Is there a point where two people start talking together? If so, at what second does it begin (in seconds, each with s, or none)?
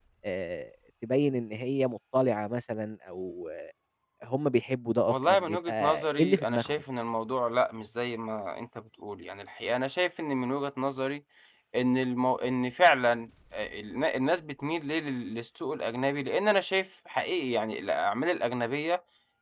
5.1 s